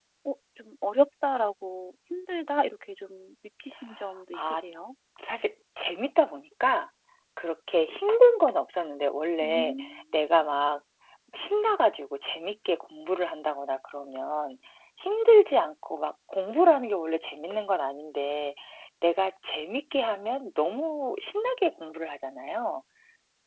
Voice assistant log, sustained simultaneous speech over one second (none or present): none